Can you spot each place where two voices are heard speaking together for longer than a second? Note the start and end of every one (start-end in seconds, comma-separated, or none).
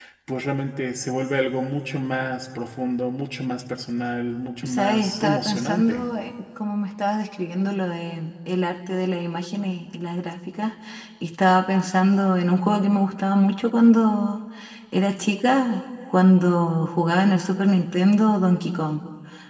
4.6-6.0